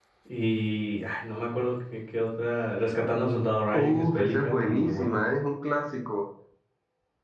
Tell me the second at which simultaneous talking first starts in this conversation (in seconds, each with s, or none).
3.7 s